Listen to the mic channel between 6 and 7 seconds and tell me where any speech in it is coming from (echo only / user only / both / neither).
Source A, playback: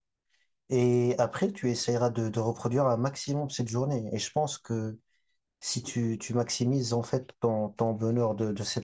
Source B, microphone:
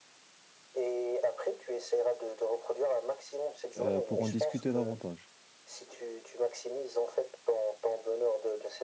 echo only